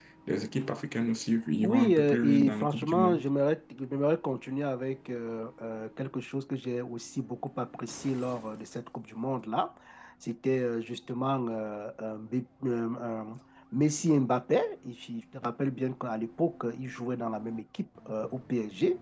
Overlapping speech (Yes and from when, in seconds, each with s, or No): Yes, from 1.6 s